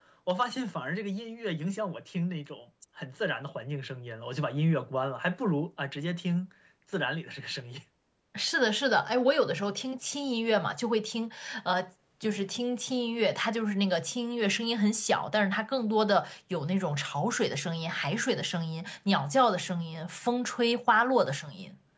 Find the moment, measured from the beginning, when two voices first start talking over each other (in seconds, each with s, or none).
none